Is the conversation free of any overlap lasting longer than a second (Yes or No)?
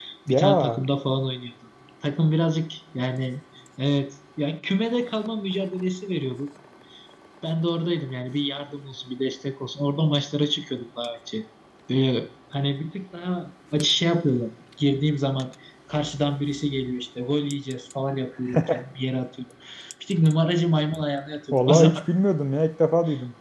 Yes